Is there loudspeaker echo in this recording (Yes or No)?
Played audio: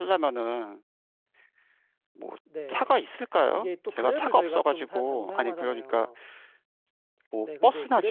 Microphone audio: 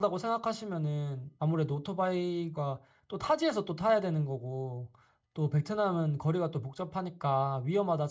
No